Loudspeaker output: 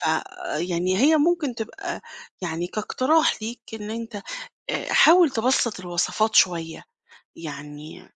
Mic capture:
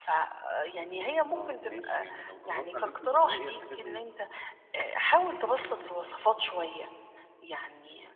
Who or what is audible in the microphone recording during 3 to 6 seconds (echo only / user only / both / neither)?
both